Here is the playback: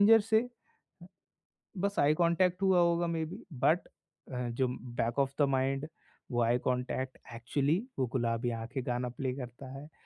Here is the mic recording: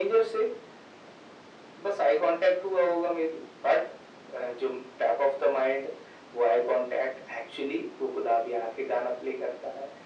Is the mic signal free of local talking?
Yes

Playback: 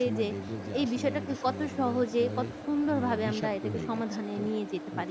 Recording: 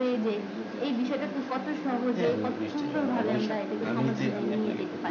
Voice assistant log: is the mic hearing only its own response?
No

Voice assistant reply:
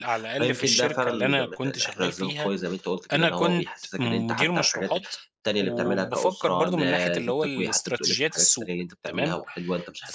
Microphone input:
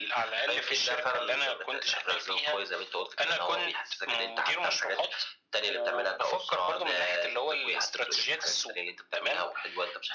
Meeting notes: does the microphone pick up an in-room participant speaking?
No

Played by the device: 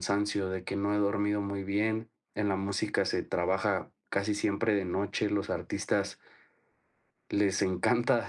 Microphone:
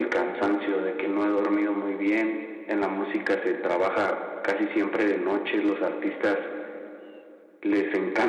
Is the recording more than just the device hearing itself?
No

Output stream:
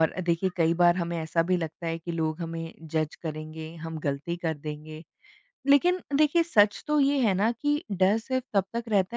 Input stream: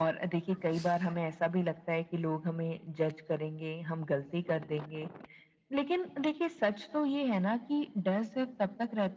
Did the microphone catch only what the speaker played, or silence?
Yes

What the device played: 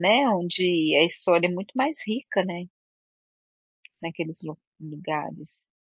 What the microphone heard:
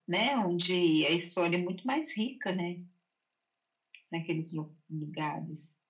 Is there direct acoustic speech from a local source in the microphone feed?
No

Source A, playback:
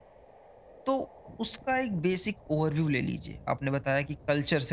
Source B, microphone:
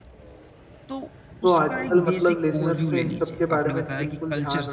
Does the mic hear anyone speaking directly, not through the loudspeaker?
Yes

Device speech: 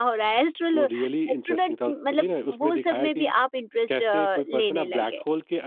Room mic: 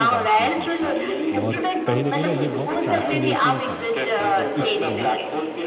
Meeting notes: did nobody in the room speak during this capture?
No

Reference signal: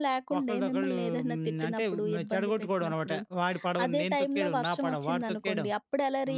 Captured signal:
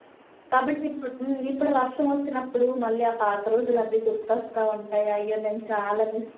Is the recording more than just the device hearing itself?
Yes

